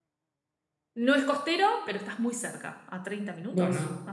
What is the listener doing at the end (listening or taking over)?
taking over